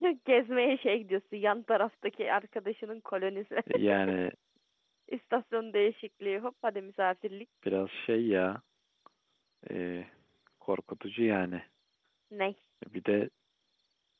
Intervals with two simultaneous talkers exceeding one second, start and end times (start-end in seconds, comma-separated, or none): none